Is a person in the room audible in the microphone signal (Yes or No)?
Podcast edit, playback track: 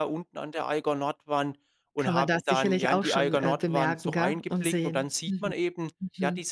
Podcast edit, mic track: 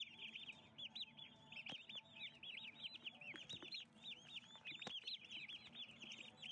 No